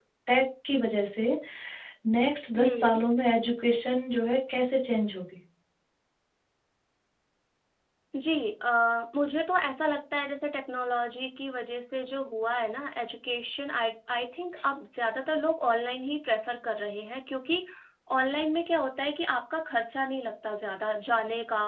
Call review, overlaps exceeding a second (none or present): none